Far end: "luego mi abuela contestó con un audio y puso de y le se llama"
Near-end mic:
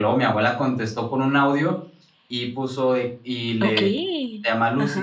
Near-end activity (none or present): present